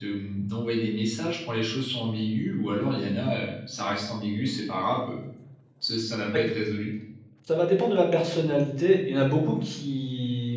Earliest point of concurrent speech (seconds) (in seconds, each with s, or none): none